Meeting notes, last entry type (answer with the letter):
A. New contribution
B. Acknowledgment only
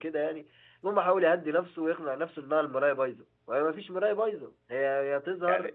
A